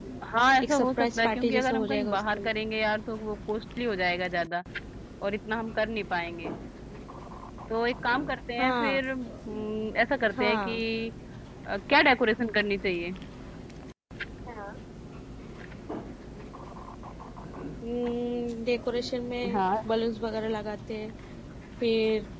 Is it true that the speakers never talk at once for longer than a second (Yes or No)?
No